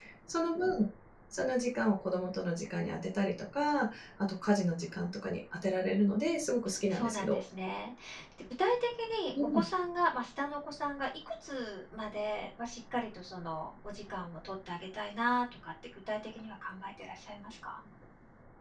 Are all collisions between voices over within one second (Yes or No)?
Yes